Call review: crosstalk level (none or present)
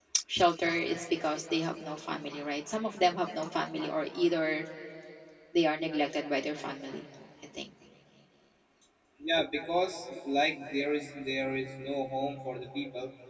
none